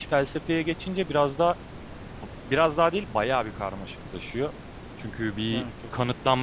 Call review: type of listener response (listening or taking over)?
listening